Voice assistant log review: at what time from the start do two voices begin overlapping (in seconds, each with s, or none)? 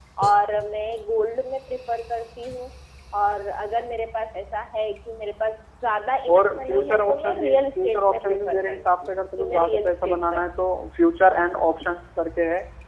6.3 s